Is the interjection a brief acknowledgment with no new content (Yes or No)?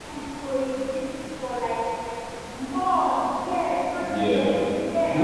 No